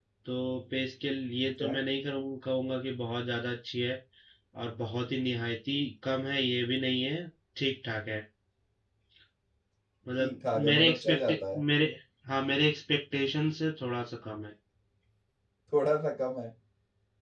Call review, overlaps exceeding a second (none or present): present